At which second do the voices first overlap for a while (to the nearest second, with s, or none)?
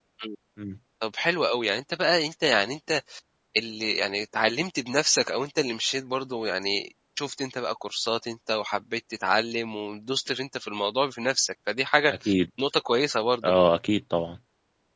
none